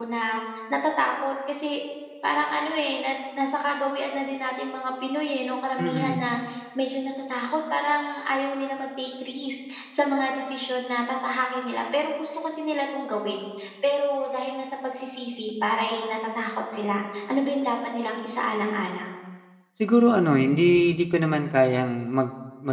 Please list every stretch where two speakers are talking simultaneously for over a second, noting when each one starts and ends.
none

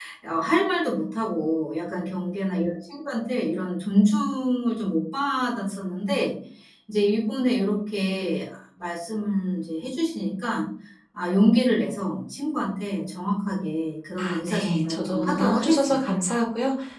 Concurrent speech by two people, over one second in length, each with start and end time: 14.2-16.0

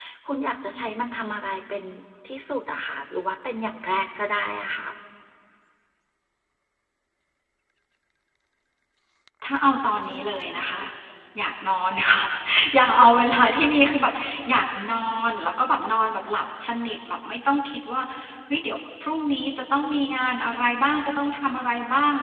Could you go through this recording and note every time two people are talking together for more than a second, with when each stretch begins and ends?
none

